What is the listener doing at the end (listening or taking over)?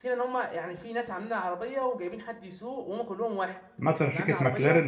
taking over